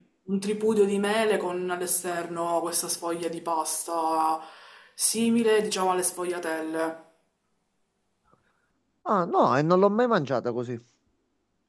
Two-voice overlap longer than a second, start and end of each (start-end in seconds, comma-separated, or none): none